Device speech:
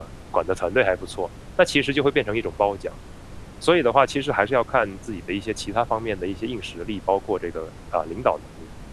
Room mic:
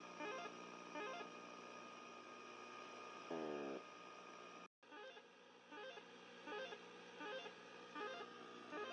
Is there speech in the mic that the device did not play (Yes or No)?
No